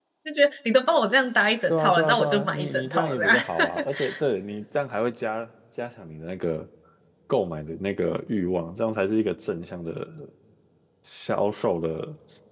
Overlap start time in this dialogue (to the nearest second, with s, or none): 2 s